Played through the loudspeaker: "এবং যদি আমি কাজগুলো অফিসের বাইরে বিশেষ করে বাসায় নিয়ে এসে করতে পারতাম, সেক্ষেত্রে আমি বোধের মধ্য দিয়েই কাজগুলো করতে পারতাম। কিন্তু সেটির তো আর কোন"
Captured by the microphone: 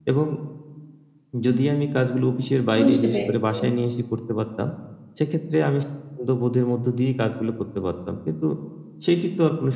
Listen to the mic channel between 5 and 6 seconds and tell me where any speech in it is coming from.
echo only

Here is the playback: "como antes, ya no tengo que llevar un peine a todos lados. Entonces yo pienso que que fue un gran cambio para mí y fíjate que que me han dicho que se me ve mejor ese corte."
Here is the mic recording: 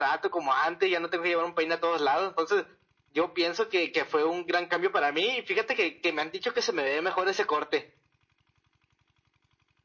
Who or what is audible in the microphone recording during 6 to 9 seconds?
echo only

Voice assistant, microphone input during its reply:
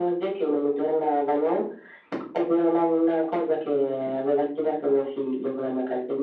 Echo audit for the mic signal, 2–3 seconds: echo only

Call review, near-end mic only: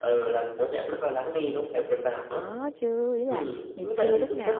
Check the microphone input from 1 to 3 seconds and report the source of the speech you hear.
both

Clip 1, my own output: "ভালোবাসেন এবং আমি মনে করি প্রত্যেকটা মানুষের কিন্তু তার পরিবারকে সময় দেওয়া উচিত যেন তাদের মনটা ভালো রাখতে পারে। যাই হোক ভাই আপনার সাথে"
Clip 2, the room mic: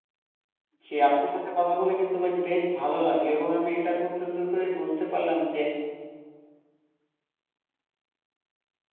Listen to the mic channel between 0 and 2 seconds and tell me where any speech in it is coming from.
user only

